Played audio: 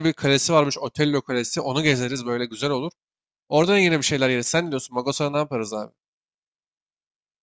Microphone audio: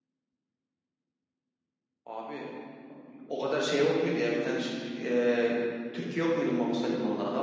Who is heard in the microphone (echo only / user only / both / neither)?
user only